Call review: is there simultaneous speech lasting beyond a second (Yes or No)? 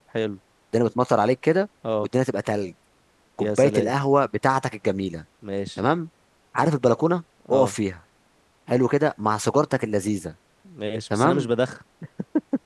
No